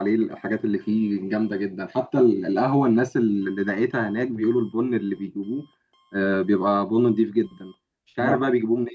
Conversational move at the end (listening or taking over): listening